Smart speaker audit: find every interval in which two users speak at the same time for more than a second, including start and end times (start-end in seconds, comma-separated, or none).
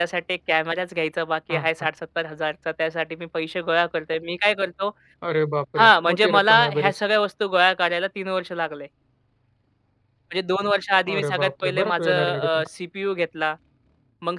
5.8-7.0, 11.1-12.7